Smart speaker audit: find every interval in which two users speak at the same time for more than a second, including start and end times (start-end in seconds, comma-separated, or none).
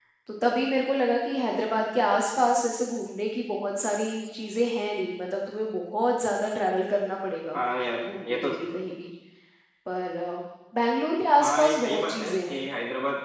11.4-12.6